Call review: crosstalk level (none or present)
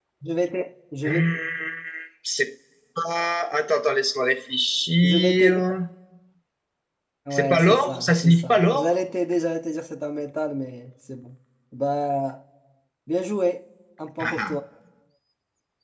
present